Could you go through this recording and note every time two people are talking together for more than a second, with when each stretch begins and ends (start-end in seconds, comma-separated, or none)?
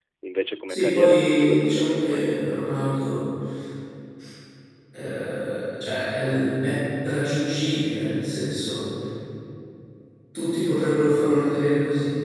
0.7-2.4